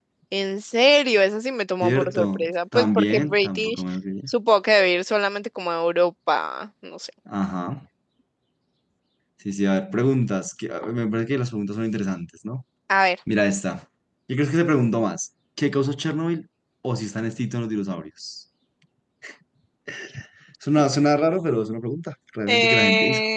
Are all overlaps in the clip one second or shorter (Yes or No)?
No